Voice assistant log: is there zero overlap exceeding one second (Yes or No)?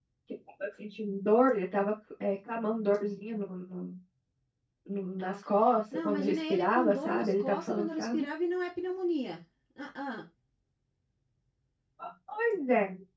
No